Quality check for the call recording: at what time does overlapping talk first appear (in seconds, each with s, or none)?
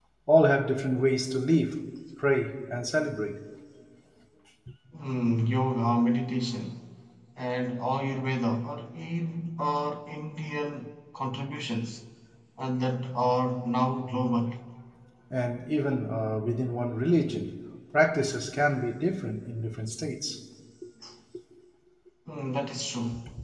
none